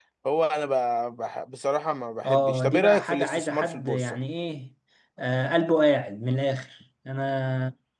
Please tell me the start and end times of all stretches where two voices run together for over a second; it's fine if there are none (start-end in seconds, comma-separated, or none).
2.2-4.2